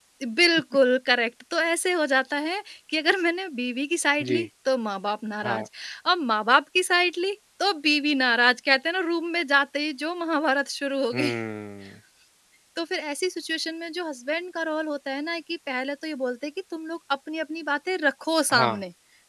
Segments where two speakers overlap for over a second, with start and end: none

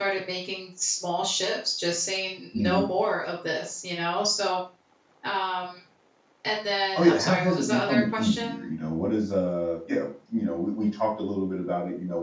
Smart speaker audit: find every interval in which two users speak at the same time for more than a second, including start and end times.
7.0-8.7

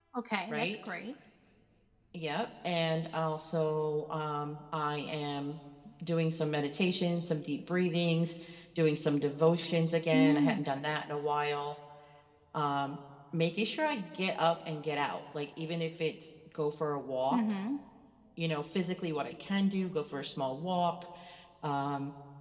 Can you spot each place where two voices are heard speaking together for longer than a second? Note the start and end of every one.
none

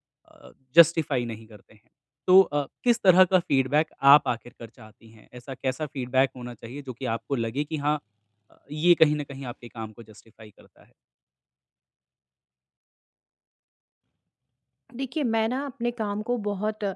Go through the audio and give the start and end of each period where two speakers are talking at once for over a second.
none

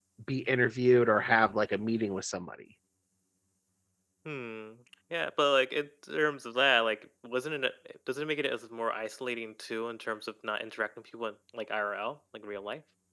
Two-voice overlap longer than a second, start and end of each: none

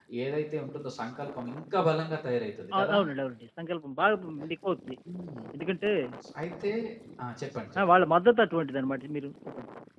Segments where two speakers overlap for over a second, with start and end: none

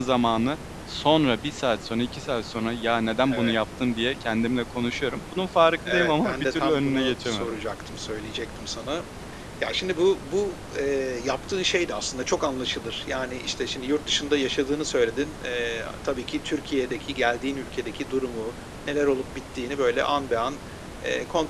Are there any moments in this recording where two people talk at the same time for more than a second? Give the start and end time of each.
5.9-7.6

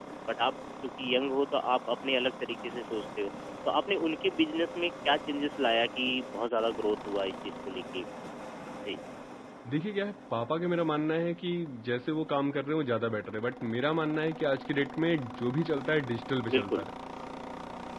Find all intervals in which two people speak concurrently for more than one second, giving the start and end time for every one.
none

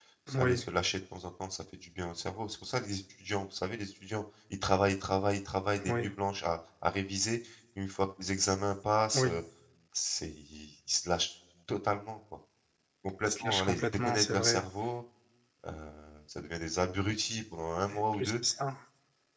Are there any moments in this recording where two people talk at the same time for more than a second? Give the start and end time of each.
13.2-14.6

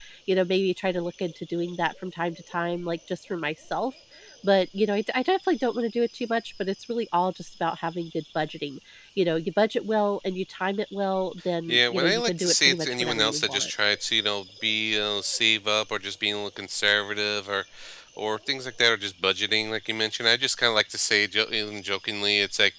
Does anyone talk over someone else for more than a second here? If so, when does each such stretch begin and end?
11.7-13.7

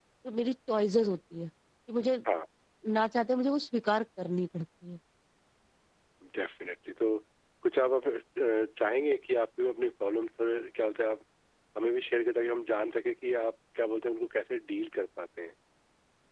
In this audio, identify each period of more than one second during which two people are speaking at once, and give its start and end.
none

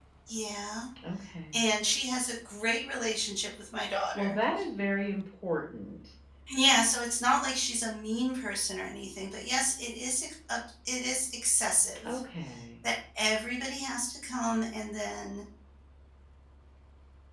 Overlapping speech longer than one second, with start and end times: none

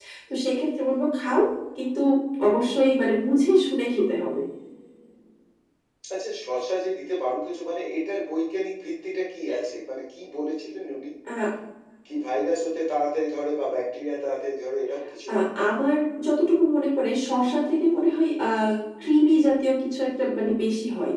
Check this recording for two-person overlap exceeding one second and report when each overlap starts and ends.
none

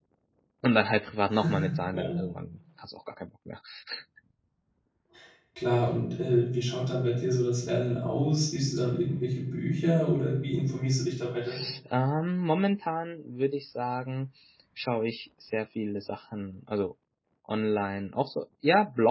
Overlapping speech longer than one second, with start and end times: none

